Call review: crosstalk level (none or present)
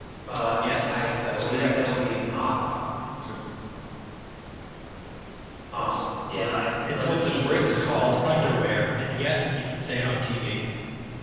present